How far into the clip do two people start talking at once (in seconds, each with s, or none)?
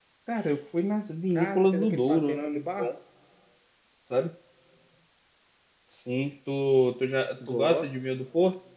1.3 s